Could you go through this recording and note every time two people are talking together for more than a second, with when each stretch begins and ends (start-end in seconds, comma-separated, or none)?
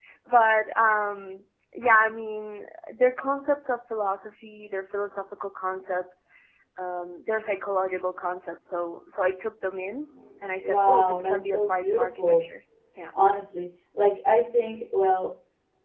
10.6-12.5